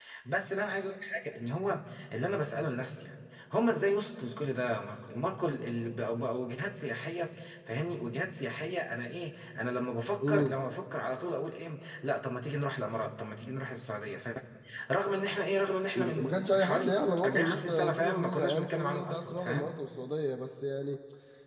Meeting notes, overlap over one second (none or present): present